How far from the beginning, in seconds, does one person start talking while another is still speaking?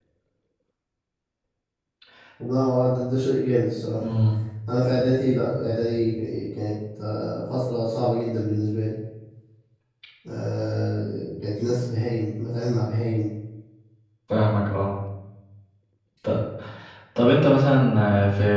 none

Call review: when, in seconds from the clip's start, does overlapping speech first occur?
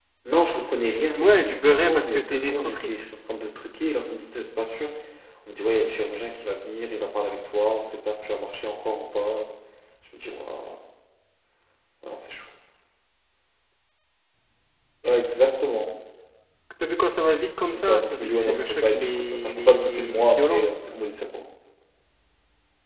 1.2 s

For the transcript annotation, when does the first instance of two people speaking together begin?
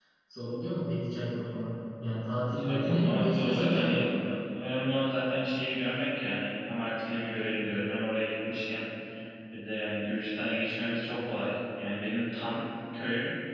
2.6 s

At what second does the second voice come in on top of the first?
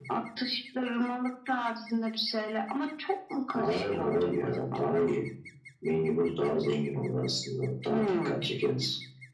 3.5 s

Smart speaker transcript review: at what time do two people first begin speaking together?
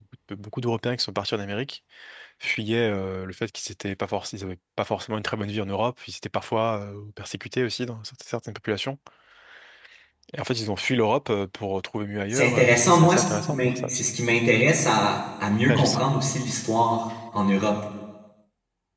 12.3 s

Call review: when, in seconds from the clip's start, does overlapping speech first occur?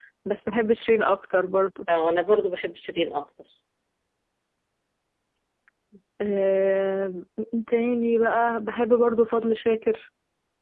none

